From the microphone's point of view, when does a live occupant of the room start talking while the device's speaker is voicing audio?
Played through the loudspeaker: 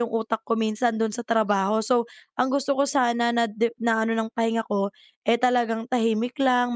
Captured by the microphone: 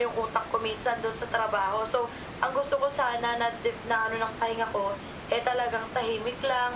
none

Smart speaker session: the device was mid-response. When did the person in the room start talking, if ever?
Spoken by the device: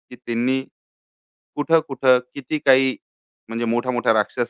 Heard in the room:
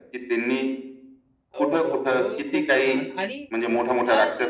1.6 s

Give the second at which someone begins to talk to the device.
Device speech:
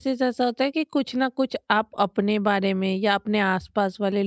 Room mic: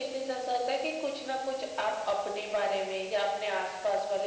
none

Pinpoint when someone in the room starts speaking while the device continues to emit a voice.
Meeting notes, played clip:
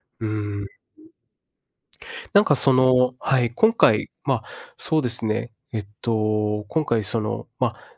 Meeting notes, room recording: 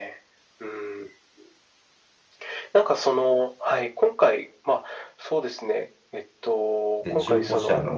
7.0 s

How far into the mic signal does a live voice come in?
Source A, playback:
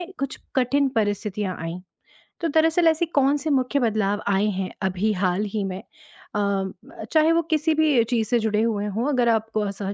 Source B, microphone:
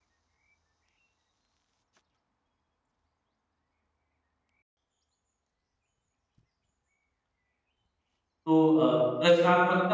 8.4 s

